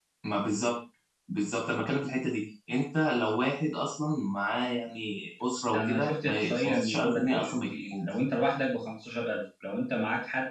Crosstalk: present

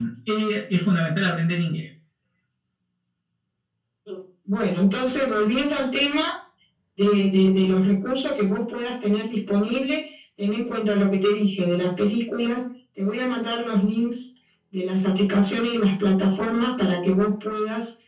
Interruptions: none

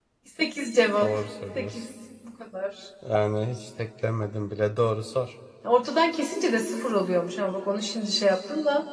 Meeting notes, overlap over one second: none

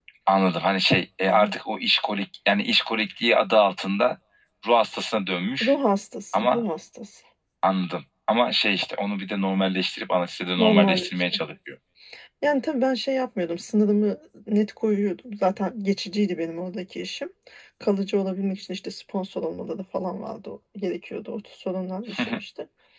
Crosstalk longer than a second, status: none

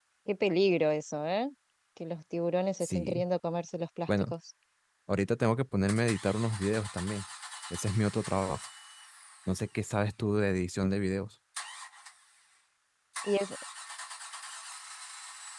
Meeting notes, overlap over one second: none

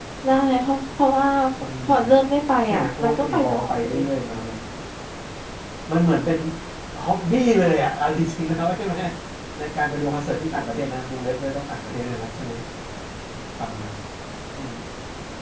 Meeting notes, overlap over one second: present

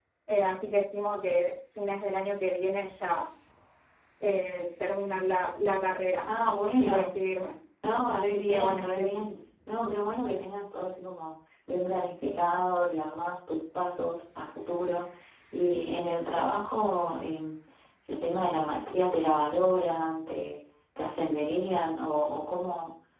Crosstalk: present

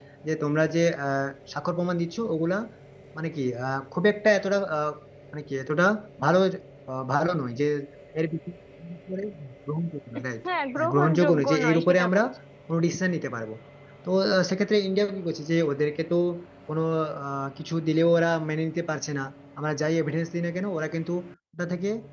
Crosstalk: present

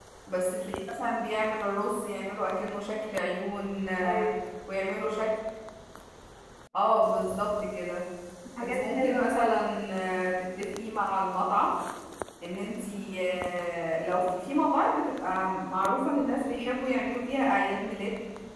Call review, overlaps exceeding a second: present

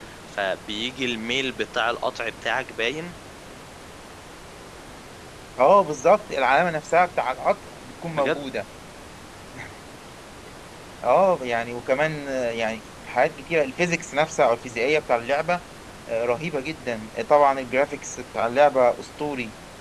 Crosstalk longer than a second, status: none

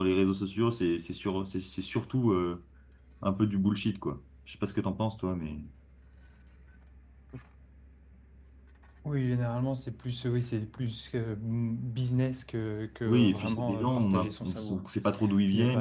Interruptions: present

